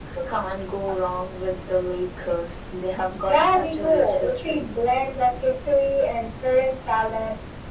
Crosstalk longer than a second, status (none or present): present